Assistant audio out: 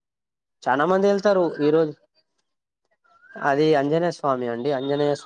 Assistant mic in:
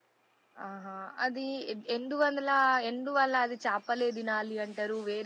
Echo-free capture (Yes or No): Yes